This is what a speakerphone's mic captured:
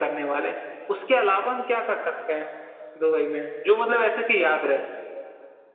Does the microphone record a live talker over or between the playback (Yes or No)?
No